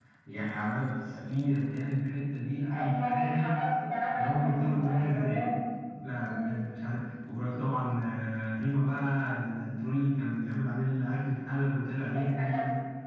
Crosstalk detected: Yes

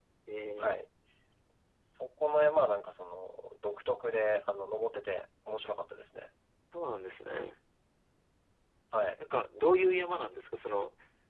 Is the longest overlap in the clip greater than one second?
No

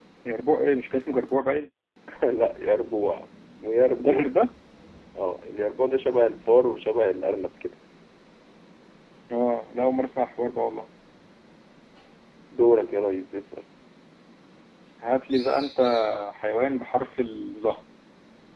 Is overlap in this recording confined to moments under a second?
Yes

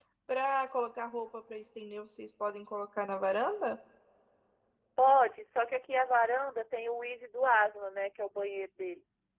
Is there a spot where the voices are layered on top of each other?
No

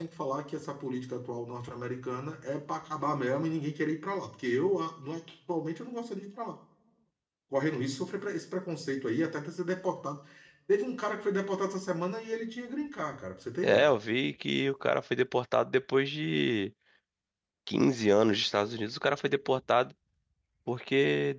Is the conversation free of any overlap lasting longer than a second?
Yes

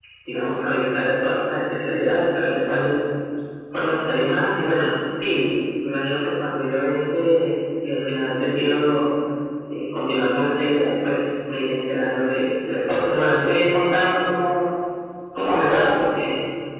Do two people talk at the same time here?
No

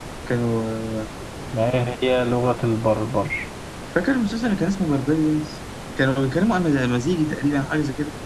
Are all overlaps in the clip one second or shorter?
Yes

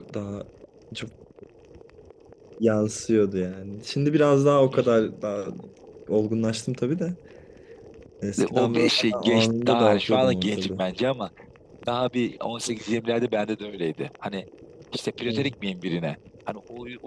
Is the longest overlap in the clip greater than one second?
Yes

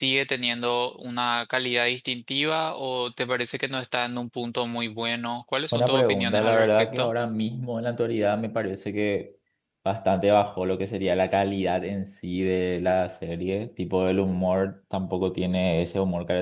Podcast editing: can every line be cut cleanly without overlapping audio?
No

